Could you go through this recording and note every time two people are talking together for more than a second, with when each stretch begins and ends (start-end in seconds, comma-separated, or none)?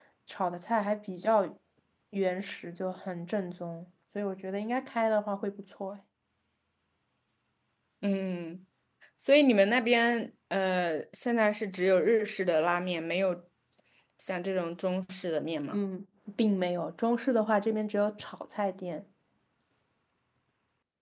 none